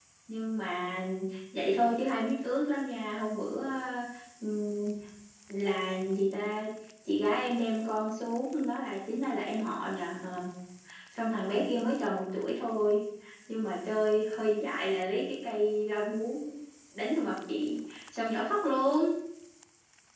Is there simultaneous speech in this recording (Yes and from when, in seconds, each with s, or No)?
No